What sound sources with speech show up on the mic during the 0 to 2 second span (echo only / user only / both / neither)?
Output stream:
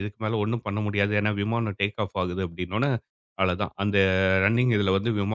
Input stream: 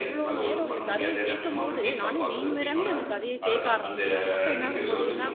both